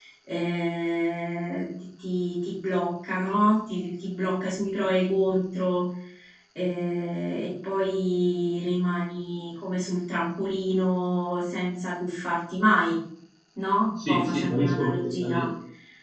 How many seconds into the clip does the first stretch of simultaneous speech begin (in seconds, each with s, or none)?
14.0 s